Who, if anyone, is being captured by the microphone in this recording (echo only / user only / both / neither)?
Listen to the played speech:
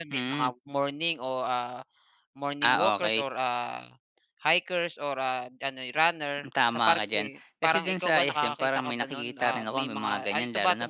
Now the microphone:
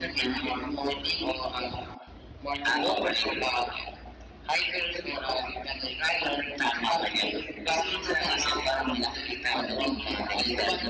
echo only